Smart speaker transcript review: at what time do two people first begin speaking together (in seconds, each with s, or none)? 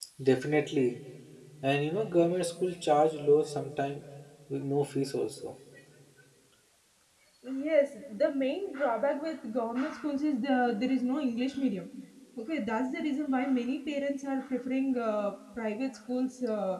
none